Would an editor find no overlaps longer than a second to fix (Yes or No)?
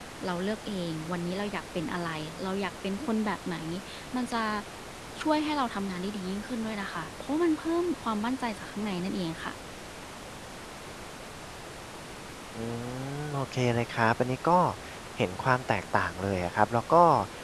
Yes